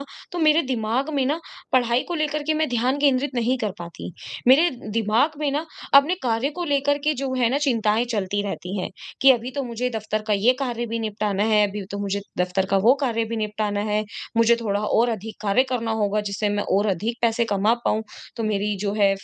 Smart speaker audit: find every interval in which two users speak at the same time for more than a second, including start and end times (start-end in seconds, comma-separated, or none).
none